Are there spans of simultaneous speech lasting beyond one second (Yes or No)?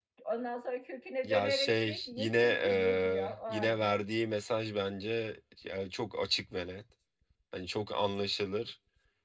Yes